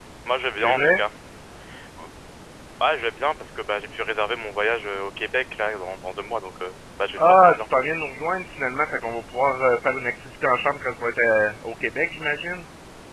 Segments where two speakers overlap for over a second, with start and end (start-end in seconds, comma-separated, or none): none